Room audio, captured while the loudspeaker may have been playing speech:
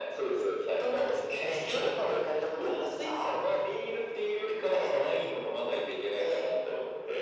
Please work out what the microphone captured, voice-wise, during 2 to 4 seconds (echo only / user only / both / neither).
echo only